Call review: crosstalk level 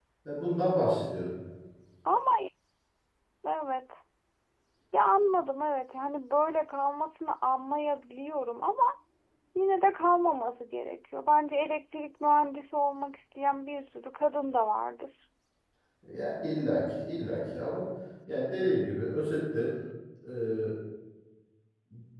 none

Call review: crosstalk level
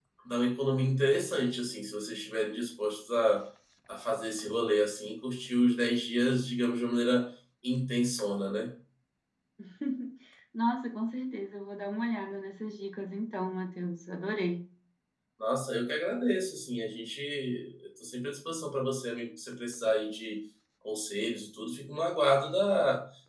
none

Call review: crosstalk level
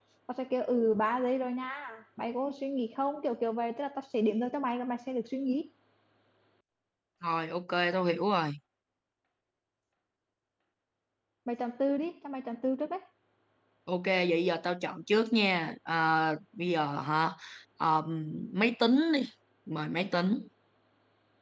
none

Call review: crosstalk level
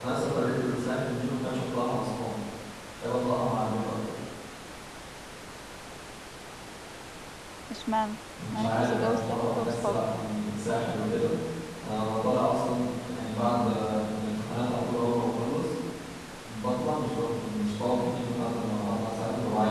present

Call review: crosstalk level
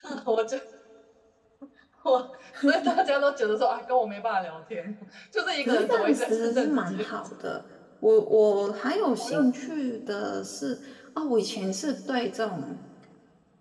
present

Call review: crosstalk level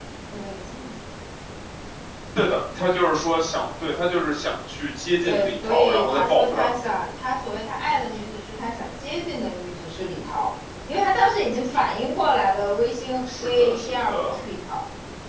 present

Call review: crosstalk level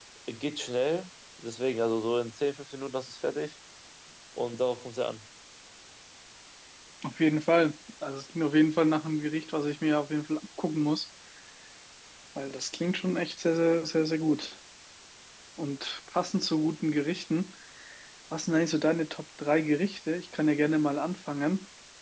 none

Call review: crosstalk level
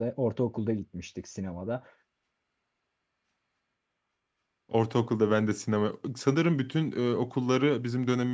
none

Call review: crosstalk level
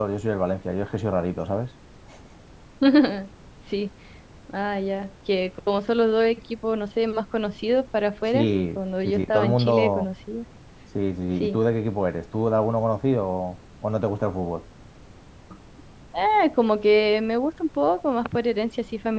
present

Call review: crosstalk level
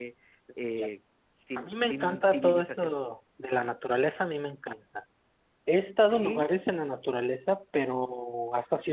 present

